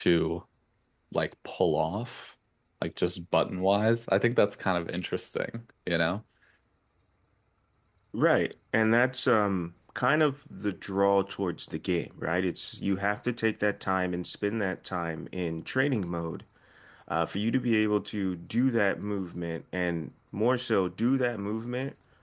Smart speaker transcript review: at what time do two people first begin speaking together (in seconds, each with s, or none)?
none